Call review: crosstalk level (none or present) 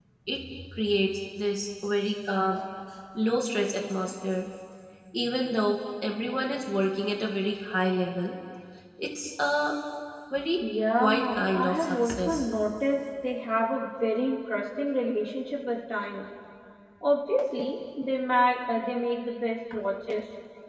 present